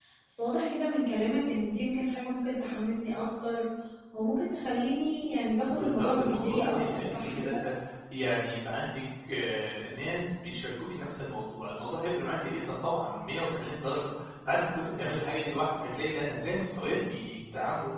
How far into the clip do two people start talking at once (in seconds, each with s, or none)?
5.7 s